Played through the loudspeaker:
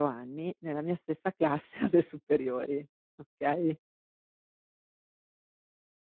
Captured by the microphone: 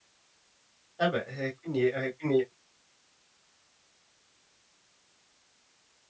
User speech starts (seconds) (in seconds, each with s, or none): 1.0 s